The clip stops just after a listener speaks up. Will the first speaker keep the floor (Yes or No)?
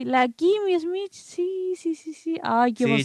No